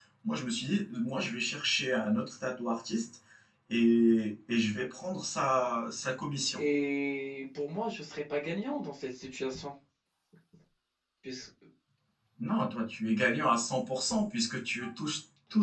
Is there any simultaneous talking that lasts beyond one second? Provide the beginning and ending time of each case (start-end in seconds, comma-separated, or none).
none